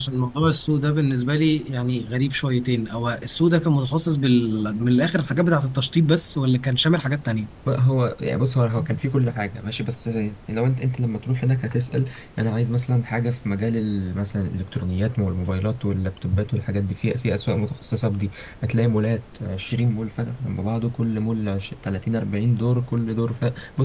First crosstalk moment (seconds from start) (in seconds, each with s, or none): none